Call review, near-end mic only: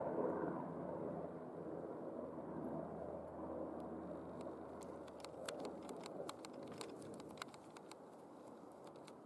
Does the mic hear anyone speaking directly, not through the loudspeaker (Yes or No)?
No